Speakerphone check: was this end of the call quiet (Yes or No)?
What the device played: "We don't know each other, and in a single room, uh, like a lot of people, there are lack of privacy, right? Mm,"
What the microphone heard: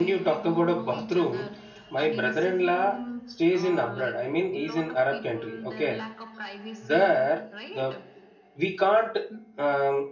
No